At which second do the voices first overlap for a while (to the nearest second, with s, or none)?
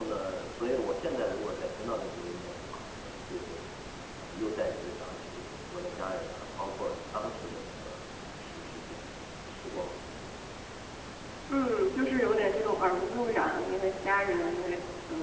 none